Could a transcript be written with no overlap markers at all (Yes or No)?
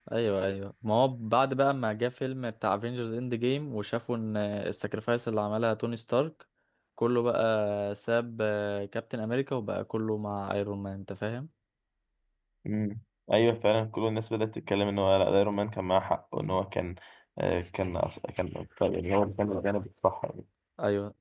Yes